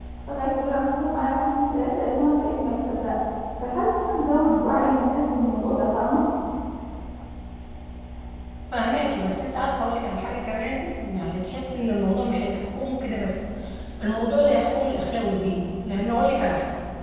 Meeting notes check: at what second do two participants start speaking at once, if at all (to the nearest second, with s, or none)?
none